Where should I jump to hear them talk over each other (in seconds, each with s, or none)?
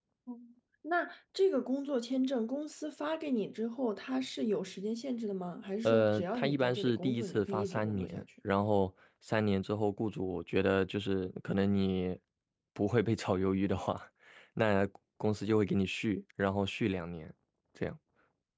5.8 s